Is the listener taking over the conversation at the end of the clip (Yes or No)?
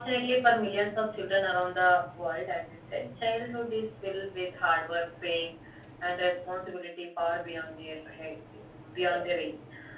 No